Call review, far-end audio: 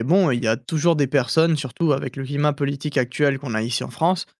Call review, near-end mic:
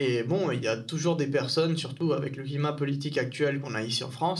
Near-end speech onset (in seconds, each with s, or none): none